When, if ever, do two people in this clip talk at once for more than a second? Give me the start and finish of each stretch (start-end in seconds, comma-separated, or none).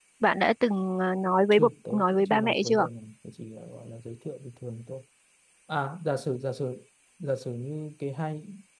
1.5-2.9